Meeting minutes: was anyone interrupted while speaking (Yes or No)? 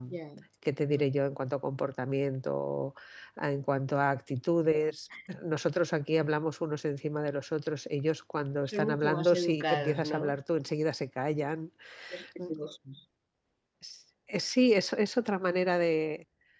Yes